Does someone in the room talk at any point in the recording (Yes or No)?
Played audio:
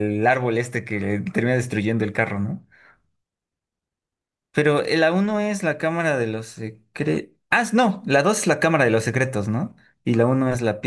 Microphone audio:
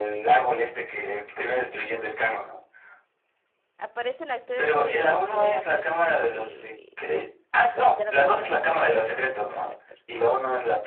Yes